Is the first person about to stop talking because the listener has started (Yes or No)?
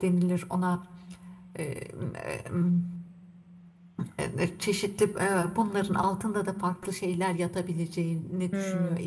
Yes